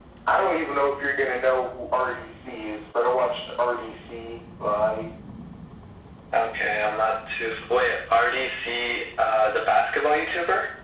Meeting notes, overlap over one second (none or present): none